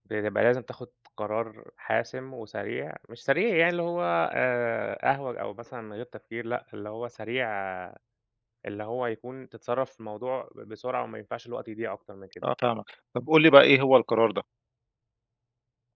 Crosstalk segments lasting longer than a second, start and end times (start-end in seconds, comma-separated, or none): none